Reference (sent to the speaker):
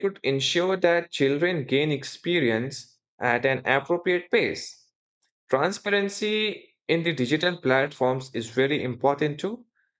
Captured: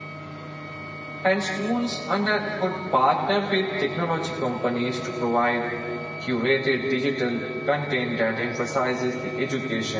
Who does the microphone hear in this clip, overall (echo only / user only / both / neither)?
user only